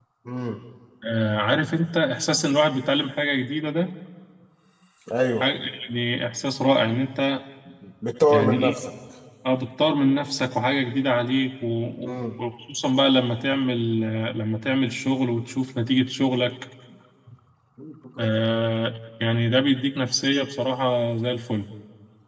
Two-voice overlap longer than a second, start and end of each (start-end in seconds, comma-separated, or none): none